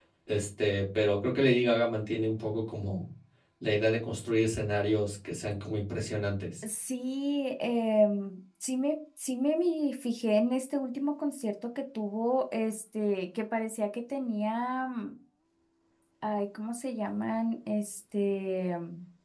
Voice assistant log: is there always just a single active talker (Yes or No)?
Yes